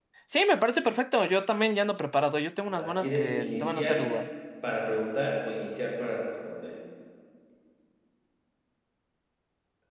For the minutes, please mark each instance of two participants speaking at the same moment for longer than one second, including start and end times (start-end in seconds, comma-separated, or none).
2.8-4.1